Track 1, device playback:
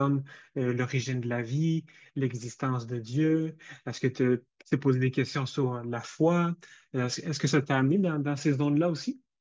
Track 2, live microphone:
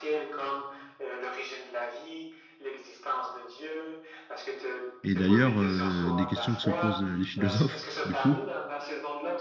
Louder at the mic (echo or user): user